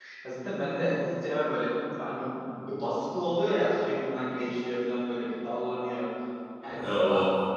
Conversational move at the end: listening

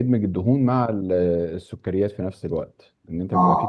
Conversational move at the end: listening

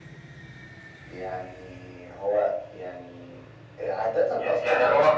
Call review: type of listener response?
taking over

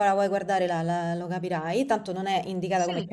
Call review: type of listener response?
listening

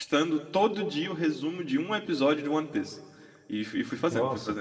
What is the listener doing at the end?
listening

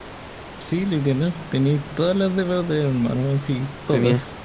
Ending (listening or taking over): taking over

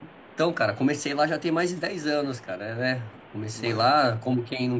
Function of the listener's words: listening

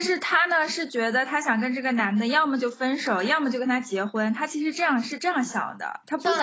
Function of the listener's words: taking over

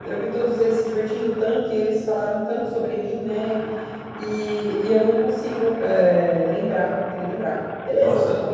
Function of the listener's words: taking over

